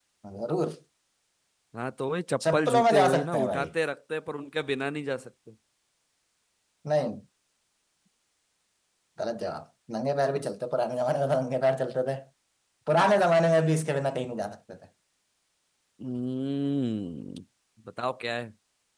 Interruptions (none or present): present